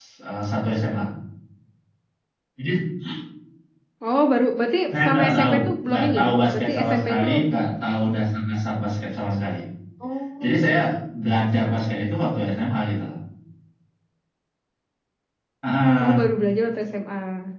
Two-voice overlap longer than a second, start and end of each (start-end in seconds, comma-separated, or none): 4.9-7.3